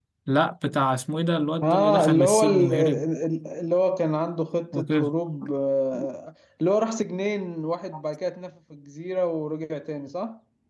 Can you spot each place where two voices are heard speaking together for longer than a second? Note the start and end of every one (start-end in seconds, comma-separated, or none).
1.6-3.1